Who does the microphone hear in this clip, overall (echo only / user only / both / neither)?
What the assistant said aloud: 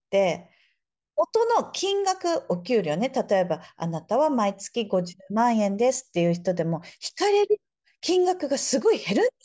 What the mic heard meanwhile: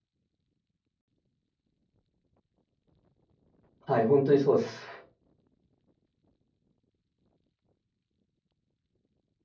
user only